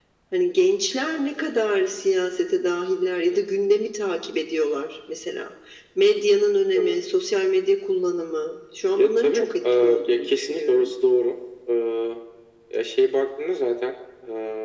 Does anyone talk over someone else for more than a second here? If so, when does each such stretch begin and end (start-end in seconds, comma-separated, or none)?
9.0-10.9